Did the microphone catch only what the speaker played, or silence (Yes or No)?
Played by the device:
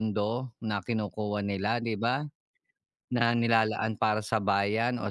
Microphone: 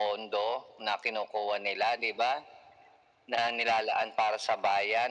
Yes